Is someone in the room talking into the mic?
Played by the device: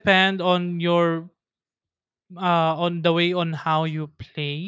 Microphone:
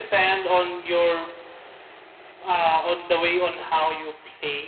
No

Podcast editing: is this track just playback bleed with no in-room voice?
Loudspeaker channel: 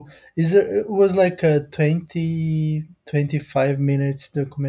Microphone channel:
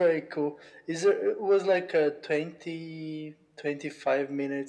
Yes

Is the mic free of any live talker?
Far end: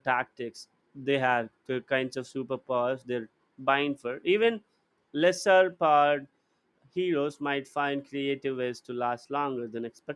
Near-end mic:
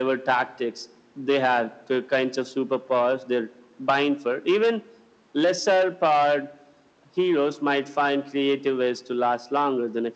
Yes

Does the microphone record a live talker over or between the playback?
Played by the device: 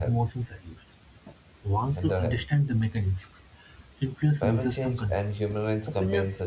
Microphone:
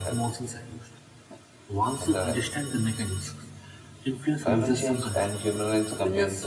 No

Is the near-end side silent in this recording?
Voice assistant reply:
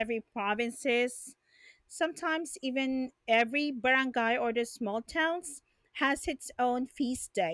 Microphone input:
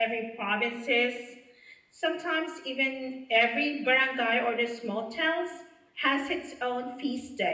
Yes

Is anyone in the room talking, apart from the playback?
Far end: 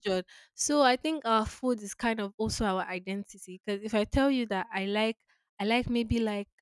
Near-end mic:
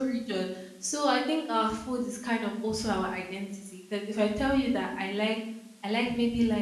No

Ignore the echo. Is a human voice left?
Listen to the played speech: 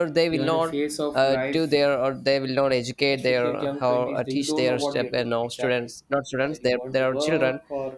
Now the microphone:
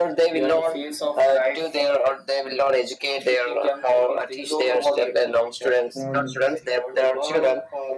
Yes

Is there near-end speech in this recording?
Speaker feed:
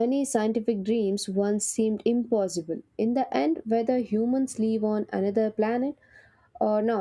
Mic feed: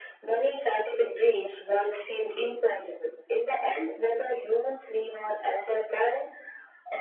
No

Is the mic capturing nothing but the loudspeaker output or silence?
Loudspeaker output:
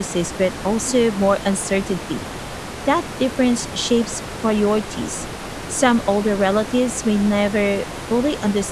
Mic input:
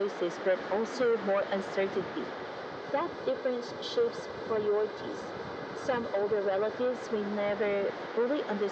Yes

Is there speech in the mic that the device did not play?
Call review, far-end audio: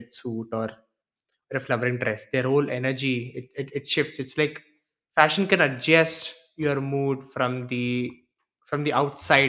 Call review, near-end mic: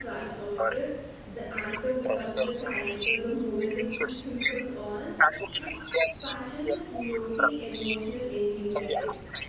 Yes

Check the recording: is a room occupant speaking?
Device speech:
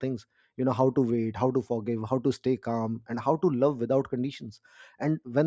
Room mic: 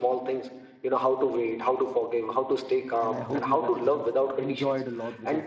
Yes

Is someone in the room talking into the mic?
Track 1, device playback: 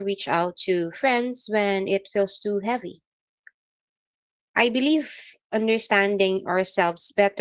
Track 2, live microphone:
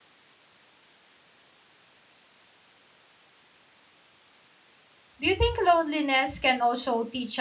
Yes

